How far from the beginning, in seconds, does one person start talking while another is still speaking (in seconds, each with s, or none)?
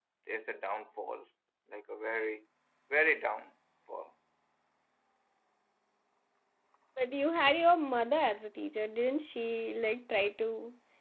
none